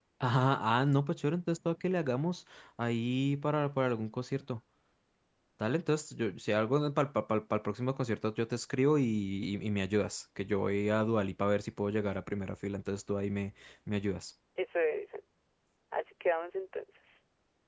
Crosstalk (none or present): none